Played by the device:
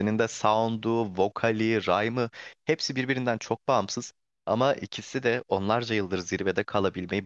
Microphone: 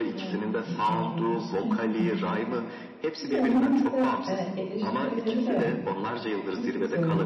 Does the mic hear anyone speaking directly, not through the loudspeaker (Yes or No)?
Yes